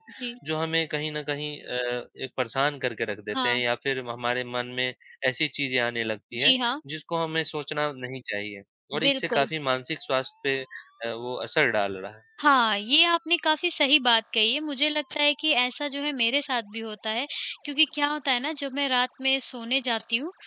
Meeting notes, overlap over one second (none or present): none